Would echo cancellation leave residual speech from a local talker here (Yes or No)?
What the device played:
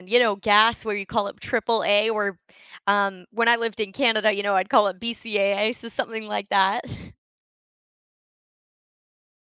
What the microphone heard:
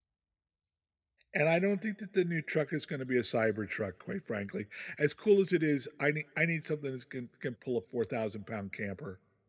Yes